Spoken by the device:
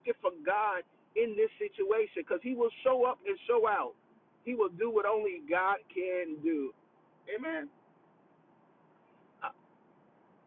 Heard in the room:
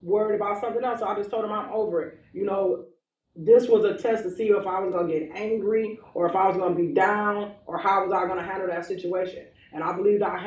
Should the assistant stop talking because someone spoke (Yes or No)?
Yes